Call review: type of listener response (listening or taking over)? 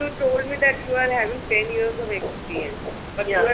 listening